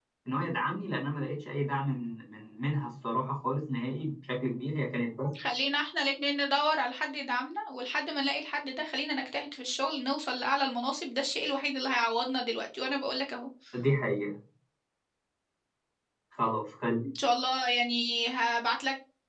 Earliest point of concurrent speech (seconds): none

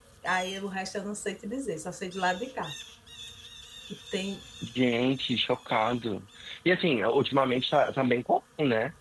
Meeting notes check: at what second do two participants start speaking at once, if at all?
none

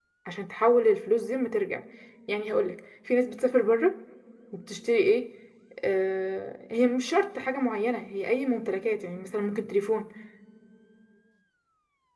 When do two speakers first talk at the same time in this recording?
none

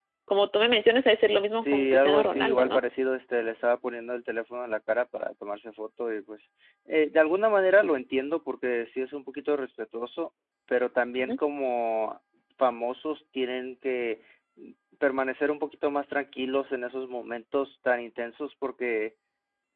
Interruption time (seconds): 2 s

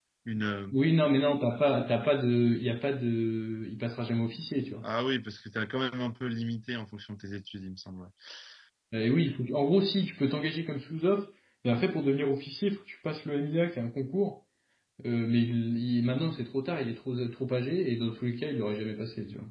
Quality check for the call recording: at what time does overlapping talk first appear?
none

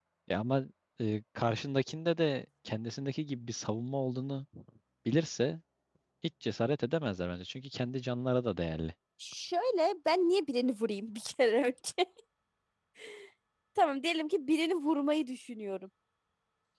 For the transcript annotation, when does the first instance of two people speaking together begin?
none

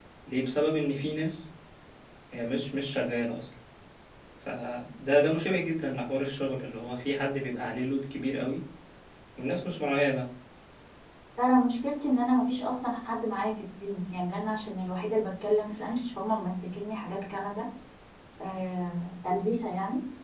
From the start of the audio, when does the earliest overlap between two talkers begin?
none

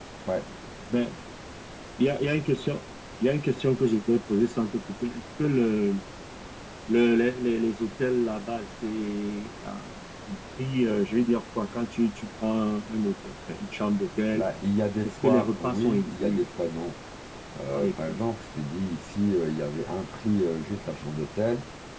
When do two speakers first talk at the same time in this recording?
15 s

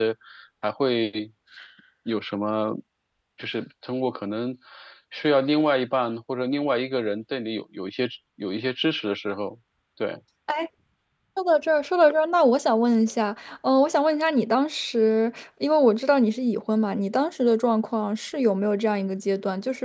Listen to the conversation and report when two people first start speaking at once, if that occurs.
none

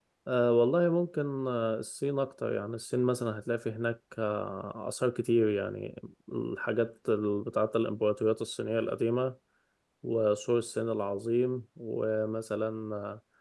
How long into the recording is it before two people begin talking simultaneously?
none

